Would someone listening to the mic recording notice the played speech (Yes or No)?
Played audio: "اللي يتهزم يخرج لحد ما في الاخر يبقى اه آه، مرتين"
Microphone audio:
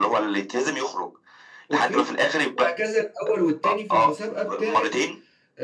Yes